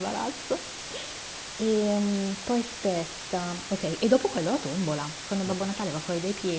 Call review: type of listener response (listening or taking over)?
listening